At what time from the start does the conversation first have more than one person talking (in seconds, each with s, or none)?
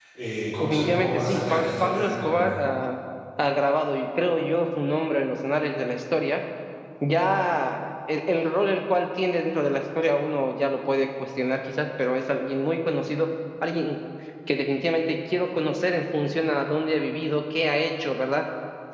0.6 s